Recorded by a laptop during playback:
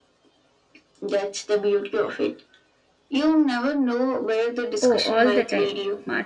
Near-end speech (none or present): present